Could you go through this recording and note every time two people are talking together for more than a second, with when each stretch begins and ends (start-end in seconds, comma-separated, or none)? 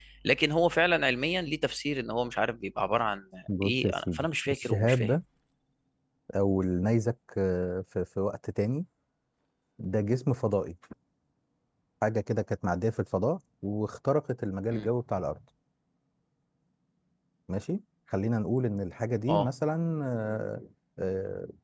3.6-5.1